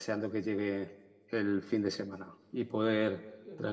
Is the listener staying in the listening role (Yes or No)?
Yes